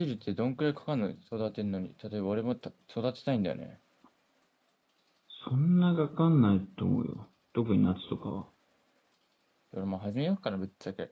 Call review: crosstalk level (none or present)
none